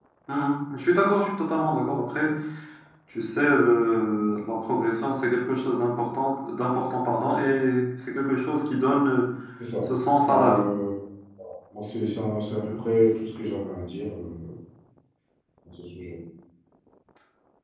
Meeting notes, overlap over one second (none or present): none